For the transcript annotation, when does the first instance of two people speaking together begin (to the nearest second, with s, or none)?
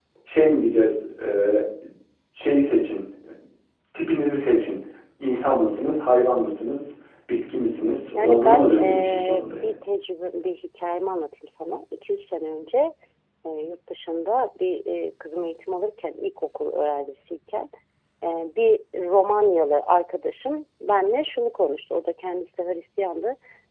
8 s